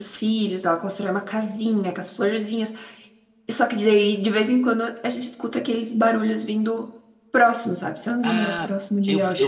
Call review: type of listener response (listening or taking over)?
taking over